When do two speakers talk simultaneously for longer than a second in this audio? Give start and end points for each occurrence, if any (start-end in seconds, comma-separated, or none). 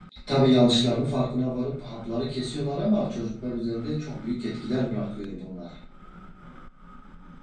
none